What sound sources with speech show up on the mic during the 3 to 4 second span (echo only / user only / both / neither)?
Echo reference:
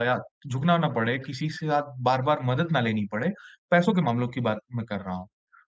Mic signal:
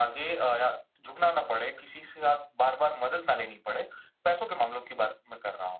echo only